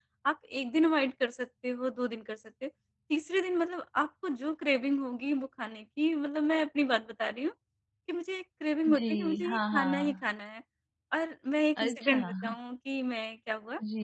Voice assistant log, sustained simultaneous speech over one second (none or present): present